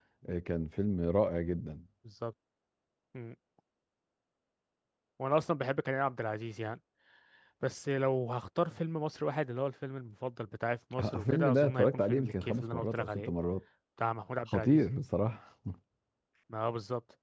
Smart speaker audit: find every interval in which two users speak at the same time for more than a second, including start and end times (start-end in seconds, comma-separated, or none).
11.0-13.3